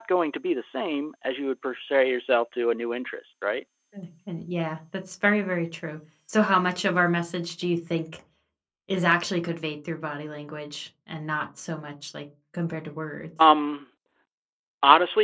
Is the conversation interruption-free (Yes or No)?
Yes